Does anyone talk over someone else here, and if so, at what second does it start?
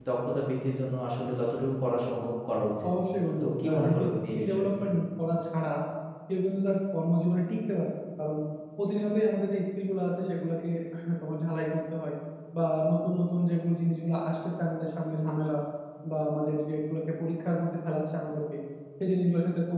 3.4 s

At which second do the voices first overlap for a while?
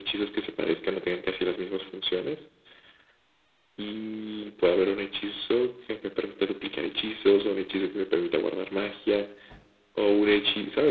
none

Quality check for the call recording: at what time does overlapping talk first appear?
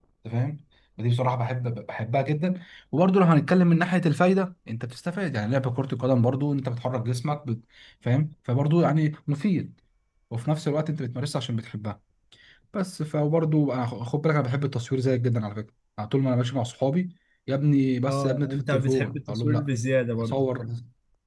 18.1 s

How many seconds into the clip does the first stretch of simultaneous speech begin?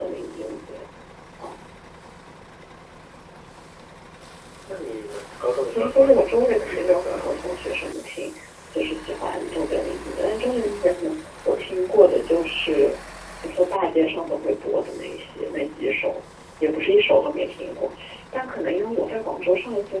5.7 s

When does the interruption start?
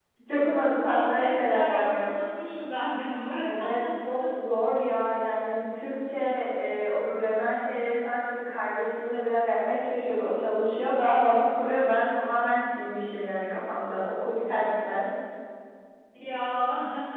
0.9 s

